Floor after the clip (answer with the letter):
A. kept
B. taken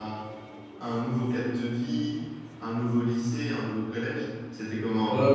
B